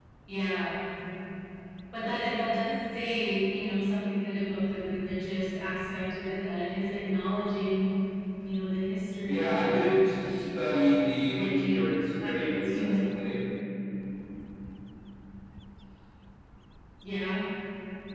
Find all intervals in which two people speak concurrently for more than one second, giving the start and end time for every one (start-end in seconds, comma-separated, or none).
11.3-13.0